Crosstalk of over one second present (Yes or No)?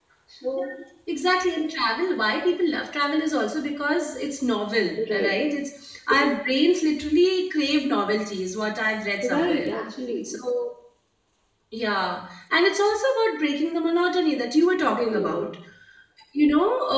No